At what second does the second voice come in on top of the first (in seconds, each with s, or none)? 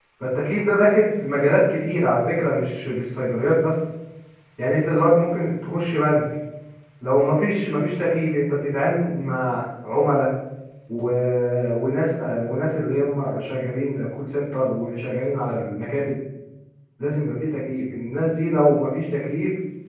none